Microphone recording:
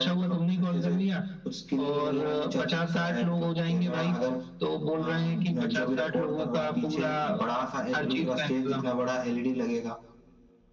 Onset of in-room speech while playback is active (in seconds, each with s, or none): none